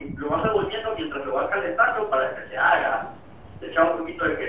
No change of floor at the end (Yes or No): Yes